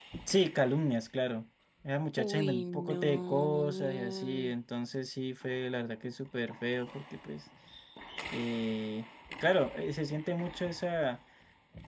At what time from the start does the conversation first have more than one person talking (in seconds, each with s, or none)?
2.1 s